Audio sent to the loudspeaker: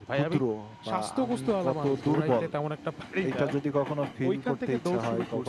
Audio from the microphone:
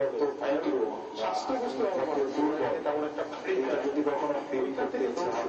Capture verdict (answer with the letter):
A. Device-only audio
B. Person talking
A